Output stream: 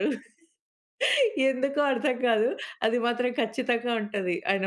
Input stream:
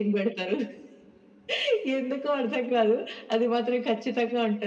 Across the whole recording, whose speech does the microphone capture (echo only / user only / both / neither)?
echo only